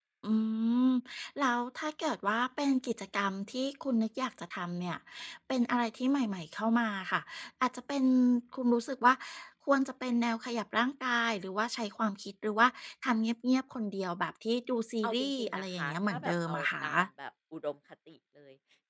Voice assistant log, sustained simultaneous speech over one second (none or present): present